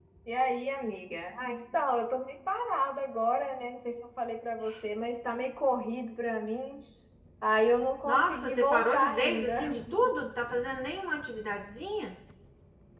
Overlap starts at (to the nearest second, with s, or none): 8 s